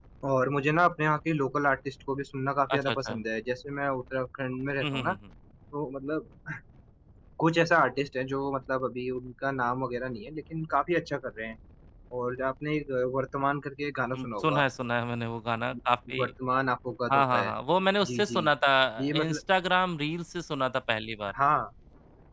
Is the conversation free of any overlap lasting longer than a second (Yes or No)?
Yes